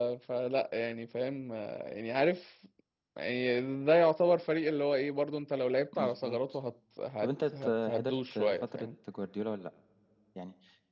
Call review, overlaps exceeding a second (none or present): present